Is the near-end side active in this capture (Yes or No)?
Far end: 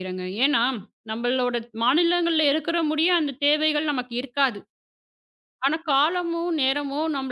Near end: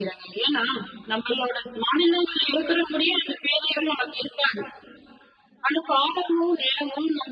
No